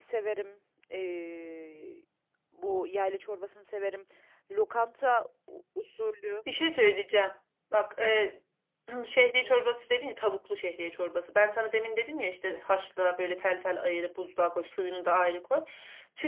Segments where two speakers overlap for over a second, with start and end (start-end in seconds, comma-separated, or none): none